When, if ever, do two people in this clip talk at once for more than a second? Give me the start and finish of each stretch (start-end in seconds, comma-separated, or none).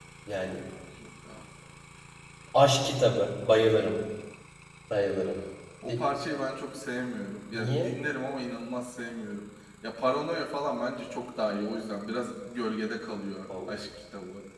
none